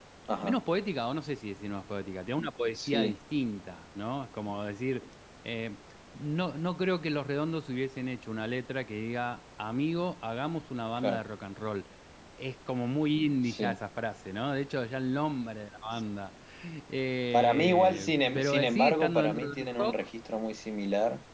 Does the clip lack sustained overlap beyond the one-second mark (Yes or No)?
No